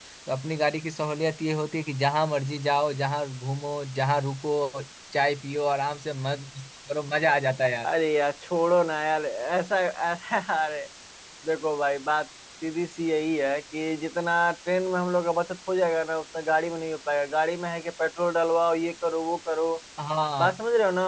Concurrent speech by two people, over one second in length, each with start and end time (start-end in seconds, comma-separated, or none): none